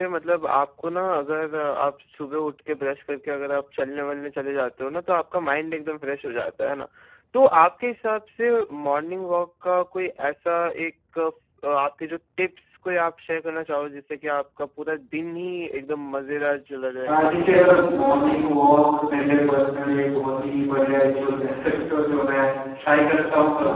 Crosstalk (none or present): present